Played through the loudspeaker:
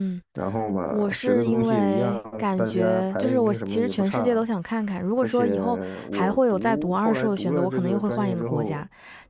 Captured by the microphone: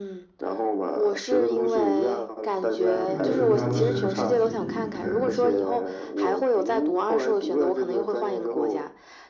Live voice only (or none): 这个就是当时自己的，